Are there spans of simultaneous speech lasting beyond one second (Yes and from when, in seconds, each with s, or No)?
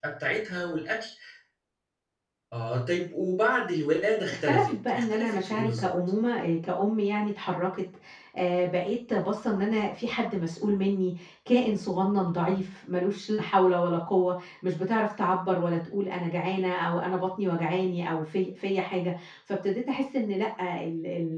Yes, from 4.3 s